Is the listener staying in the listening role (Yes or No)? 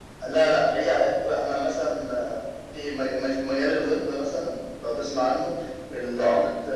Yes